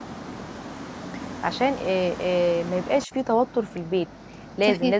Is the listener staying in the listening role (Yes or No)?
Yes